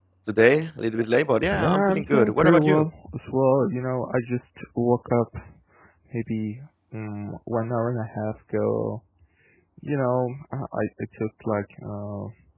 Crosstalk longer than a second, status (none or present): present